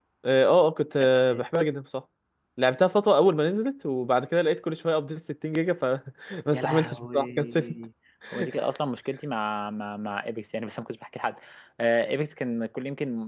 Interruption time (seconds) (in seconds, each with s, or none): 6.5 s